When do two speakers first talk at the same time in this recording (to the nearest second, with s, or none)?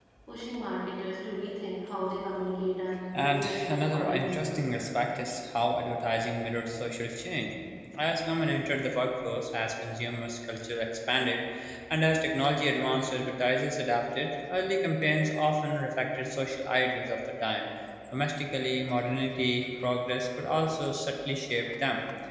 3 s